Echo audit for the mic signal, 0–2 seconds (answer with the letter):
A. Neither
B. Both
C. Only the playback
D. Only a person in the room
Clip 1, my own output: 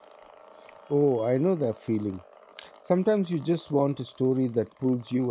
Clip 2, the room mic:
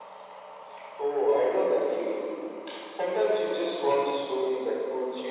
C